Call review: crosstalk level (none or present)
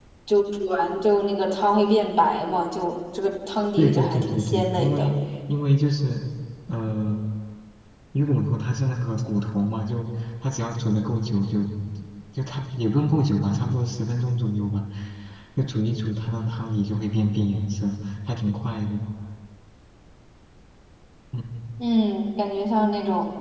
present